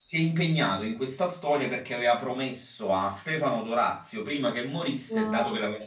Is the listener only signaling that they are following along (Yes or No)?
Yes